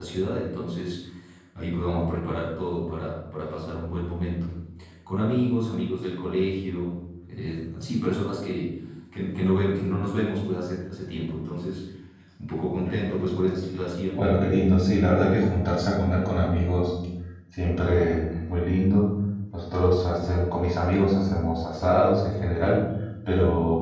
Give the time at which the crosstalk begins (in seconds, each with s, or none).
none